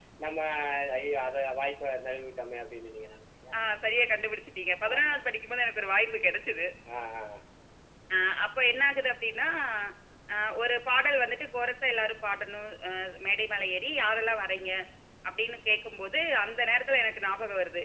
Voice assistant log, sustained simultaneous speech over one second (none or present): none